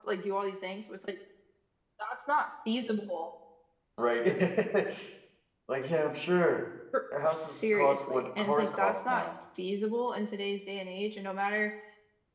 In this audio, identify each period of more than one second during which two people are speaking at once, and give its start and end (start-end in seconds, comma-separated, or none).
7.2-9.3